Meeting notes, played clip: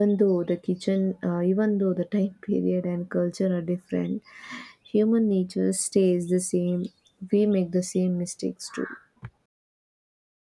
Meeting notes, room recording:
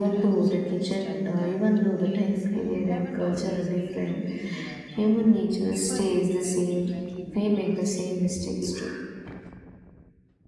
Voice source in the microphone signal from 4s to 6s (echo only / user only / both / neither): both